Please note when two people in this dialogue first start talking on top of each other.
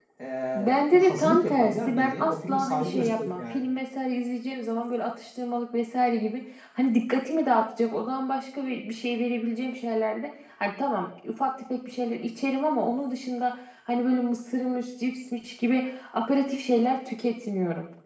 0.6 s

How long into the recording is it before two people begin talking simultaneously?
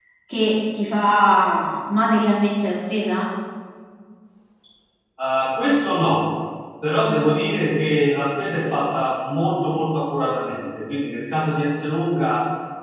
none

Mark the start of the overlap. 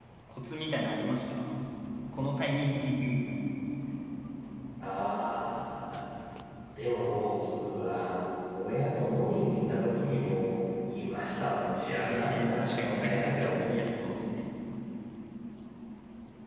12.0 s

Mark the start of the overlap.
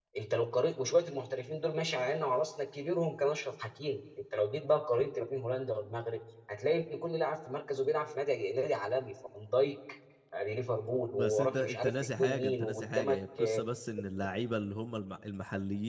11.1 s

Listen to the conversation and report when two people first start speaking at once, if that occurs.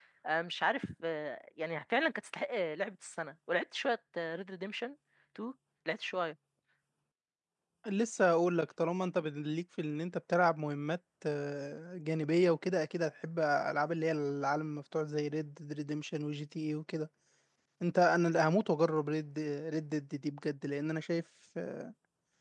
none

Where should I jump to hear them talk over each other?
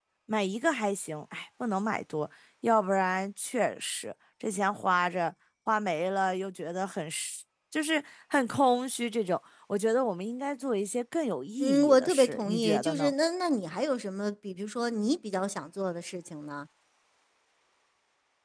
11.6 s

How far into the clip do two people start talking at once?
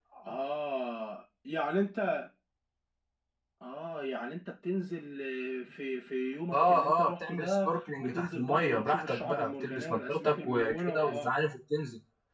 6.5 s

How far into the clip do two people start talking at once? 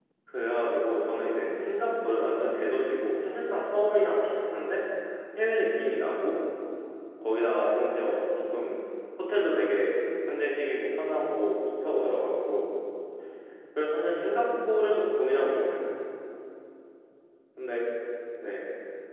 none

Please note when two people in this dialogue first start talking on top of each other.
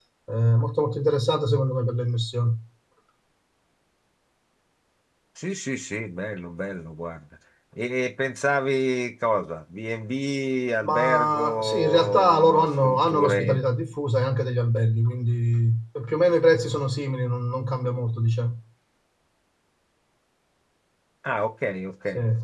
10.8 s

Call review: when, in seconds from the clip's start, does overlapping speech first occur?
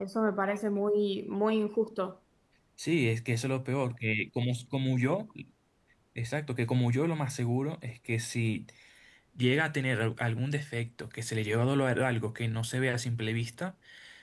none

